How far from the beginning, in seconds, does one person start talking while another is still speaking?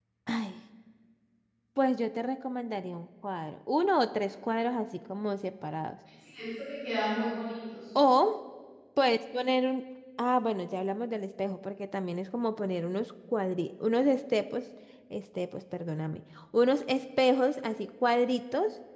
none

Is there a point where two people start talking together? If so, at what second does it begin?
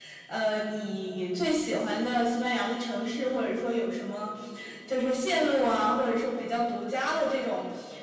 none

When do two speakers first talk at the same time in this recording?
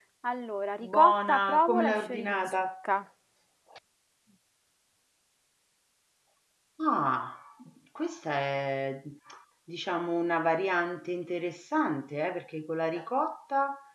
1 s

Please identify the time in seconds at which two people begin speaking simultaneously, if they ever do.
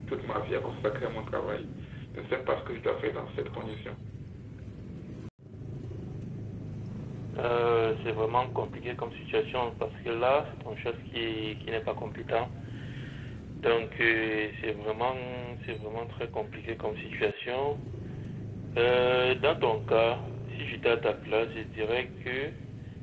none

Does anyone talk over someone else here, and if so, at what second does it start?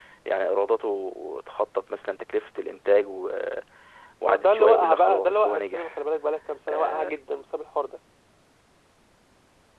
4 s

